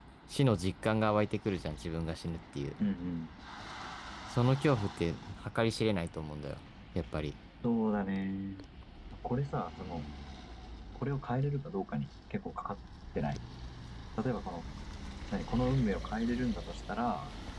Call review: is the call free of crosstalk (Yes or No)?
Yes